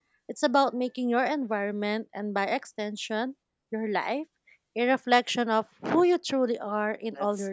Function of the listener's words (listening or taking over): taking over